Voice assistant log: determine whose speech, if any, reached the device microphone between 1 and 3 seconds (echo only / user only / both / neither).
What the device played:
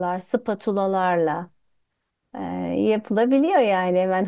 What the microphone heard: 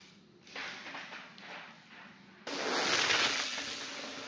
neither